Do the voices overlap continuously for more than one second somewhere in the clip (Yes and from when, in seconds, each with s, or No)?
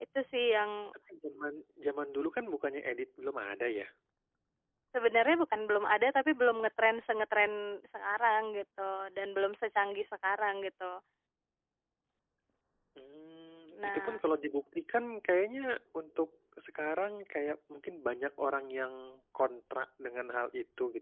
No